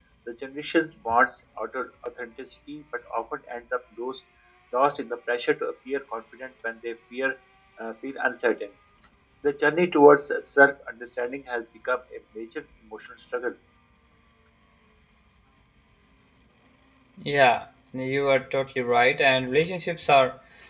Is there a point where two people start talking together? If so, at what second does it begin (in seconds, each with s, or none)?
none